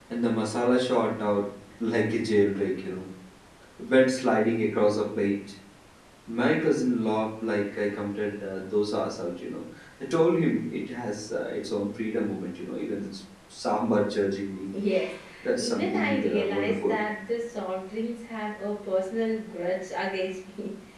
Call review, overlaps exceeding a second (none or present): present